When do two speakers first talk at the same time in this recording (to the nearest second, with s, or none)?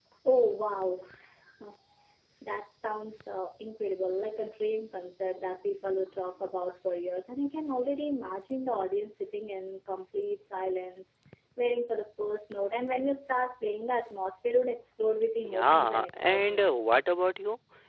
16 s